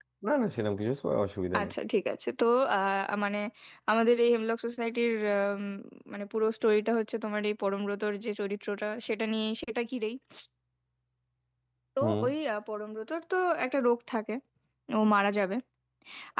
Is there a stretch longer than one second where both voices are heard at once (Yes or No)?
No